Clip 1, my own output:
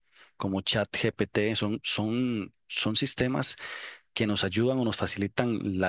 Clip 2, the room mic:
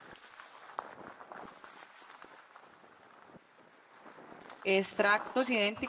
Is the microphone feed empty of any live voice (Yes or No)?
No